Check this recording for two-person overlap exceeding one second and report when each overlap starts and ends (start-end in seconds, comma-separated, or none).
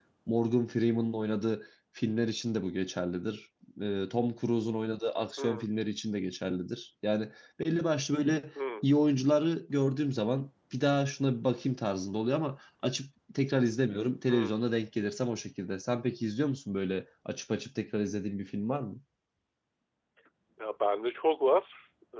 none